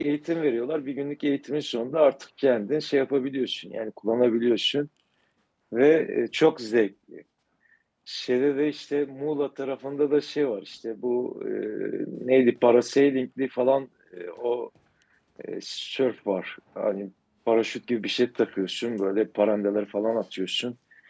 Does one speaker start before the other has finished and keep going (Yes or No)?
No